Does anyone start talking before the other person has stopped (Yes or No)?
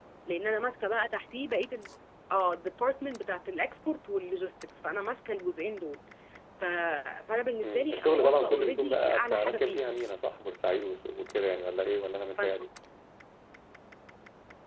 Yes